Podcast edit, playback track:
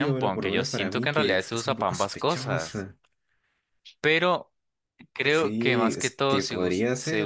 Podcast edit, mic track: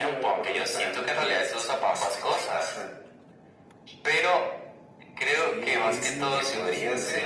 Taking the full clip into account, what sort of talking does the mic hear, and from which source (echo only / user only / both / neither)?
both